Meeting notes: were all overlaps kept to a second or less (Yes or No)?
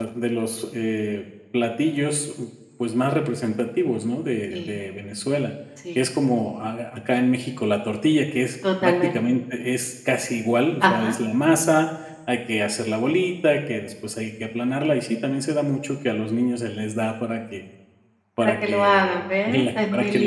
No